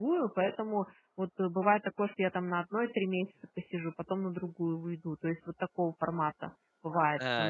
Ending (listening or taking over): taking over